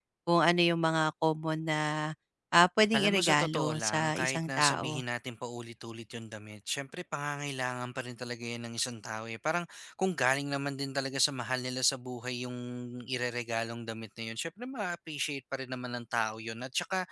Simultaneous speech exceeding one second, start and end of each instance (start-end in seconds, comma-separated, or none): 2.9-5.0